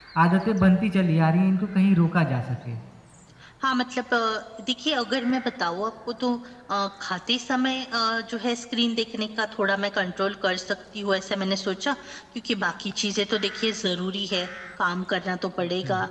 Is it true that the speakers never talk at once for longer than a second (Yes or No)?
Yes